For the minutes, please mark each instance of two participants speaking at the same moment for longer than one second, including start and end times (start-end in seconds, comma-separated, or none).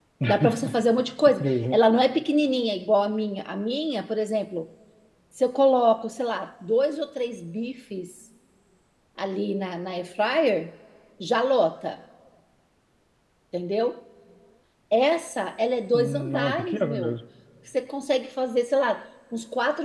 15.9-17.1